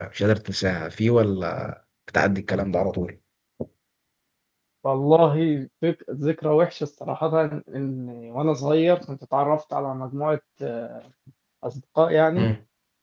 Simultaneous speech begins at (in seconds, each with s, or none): none